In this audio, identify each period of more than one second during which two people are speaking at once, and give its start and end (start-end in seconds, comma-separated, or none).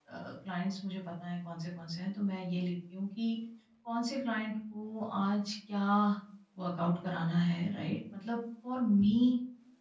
none